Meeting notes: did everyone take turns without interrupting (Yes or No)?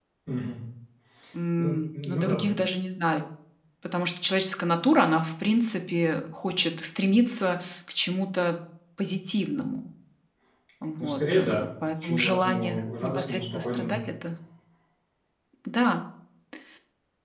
No